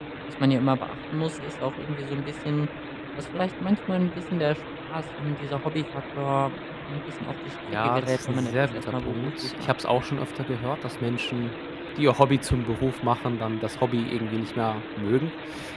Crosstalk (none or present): present